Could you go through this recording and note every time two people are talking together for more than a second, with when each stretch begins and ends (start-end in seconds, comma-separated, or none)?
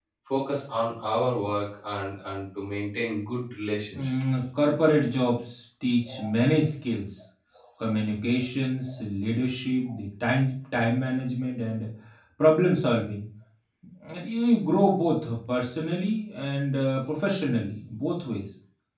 none